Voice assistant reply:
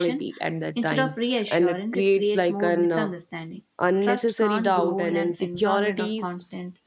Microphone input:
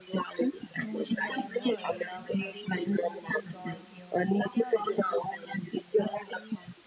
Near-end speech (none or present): present